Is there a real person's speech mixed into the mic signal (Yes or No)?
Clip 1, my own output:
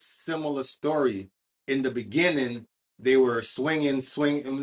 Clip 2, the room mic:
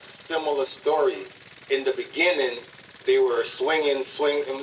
No